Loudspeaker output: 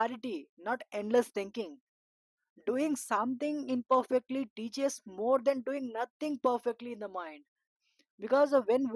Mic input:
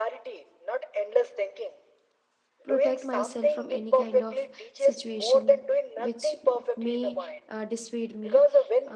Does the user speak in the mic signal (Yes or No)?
Yes